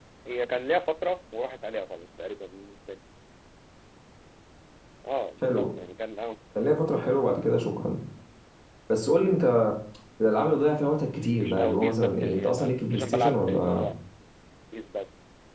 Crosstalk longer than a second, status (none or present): present